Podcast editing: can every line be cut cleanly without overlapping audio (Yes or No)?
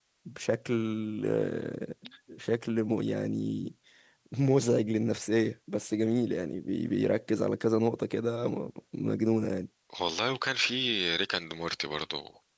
Yes